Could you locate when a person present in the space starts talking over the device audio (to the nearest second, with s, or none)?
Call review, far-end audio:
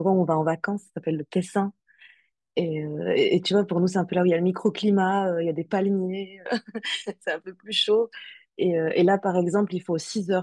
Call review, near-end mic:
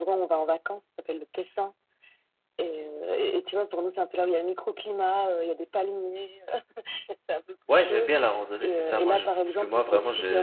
8 s